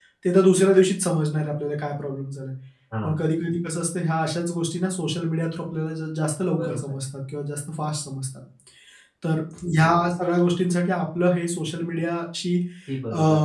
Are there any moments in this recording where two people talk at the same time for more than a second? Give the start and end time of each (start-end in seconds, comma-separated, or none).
none